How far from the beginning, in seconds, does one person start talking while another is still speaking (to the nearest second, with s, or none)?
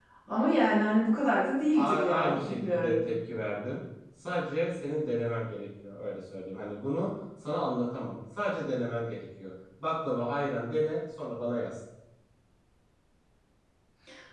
2 s